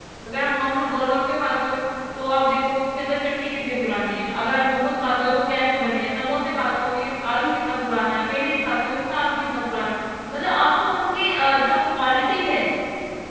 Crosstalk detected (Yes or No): No